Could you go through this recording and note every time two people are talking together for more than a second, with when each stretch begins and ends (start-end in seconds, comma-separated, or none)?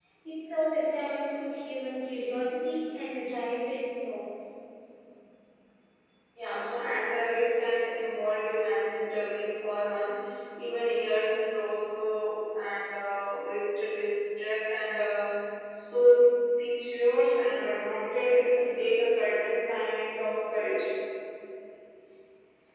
none